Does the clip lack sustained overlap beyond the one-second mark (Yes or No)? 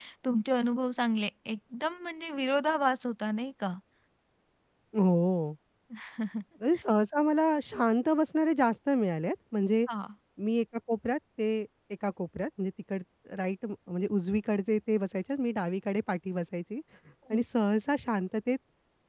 Yes